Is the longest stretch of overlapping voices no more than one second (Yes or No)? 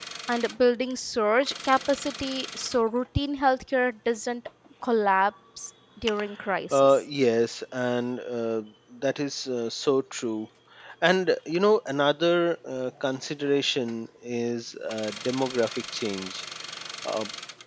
Yes